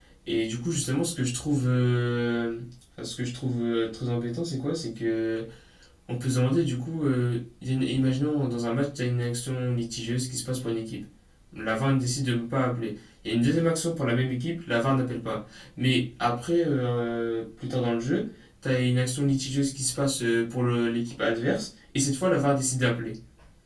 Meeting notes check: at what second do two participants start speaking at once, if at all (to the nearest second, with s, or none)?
none